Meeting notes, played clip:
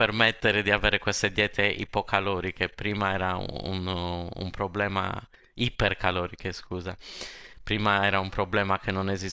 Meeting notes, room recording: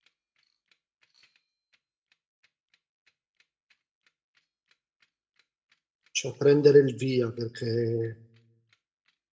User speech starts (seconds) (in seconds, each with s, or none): 6.1 s